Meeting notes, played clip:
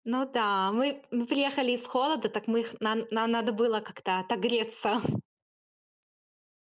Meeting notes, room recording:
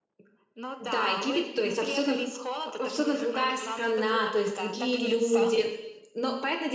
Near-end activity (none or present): present